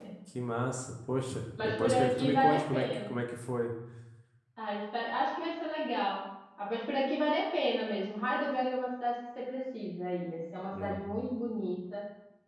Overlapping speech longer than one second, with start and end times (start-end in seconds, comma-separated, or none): 1.6-3.1